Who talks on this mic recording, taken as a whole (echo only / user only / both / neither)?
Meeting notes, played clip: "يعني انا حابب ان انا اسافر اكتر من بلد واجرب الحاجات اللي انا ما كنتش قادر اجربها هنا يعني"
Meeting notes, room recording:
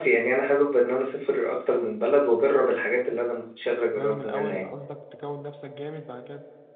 both